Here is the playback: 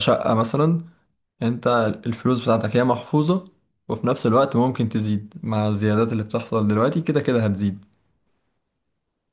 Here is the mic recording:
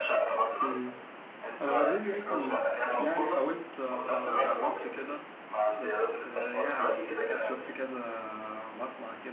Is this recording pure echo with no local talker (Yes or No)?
No